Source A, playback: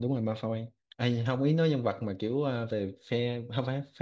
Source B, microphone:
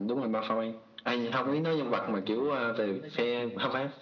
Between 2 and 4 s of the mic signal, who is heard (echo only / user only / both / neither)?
both